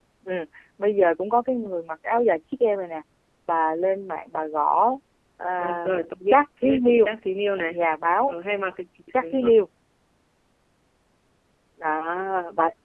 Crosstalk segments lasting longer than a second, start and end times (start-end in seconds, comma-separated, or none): 5.6-7.1